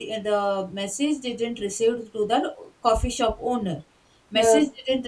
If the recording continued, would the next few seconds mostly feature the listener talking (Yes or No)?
No